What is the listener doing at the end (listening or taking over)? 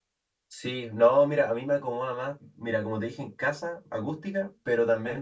listening